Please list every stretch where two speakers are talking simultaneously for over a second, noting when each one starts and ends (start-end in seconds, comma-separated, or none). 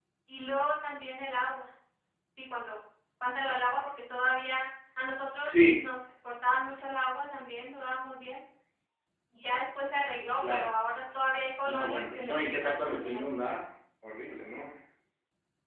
11.7-13.2